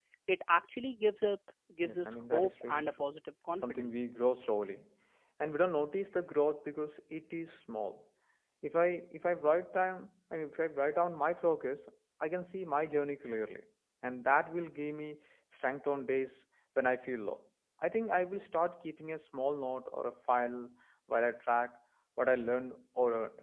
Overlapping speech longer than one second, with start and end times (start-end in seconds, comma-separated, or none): 1.8-3.1